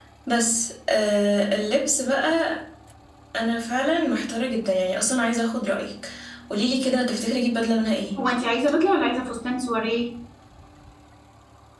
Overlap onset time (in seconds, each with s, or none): none